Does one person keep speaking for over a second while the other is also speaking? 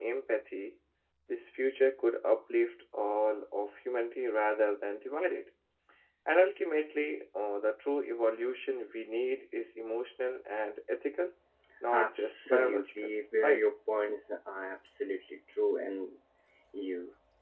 Yes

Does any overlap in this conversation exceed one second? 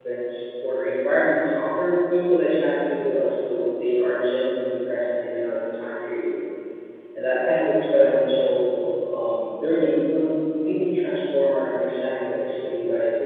No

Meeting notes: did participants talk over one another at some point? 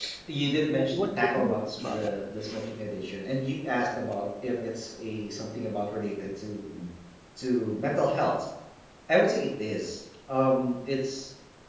Yes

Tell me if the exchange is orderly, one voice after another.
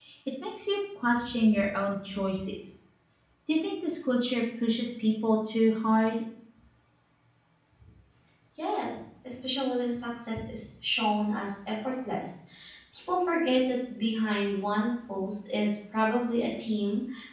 Yes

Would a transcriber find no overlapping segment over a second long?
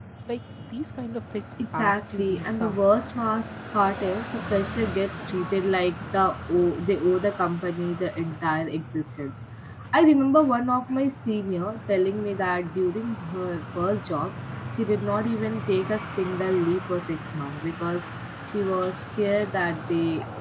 No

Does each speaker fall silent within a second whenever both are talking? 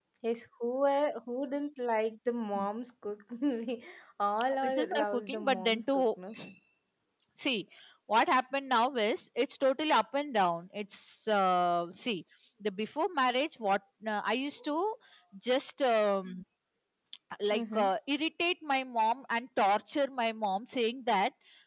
No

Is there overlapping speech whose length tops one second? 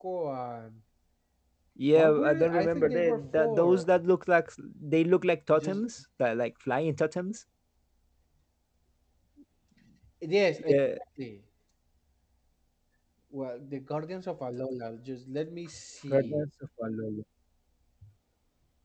Yes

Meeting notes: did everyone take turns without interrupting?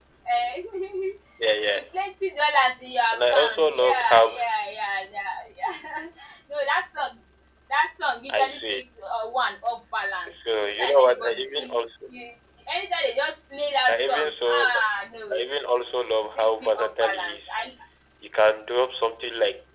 No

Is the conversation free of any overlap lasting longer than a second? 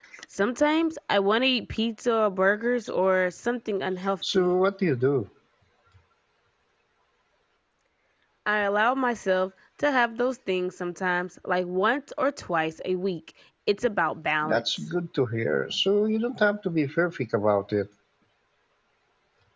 Yes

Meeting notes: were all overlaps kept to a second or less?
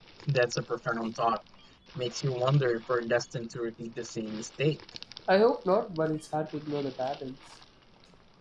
Yes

